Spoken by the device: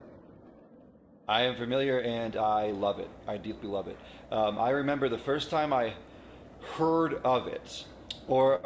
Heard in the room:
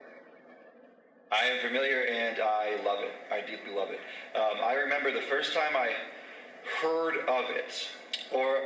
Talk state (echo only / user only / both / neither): echo only